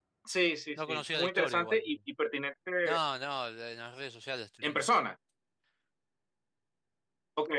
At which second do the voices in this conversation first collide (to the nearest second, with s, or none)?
1 s